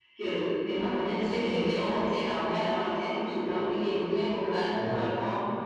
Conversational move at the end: taking over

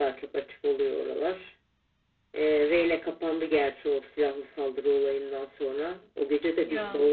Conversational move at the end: listening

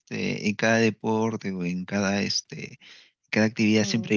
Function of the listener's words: listening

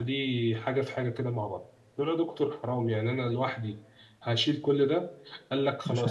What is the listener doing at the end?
listening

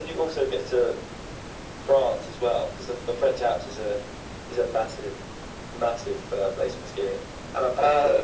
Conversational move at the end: listening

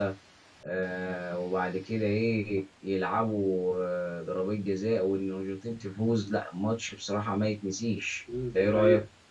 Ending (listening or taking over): taking over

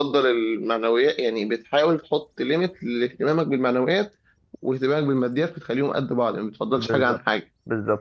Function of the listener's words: taking over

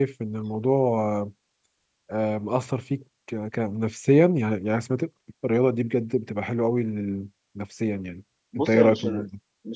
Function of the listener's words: taking over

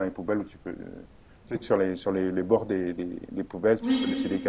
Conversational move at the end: listening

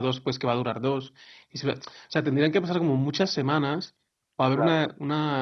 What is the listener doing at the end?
listening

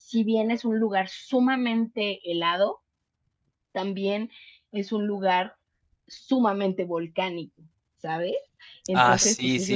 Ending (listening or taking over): taking over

